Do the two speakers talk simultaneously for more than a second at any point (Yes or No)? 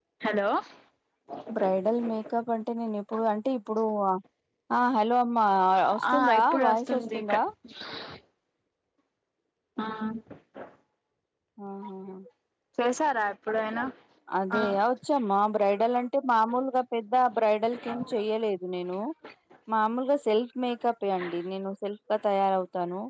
Yes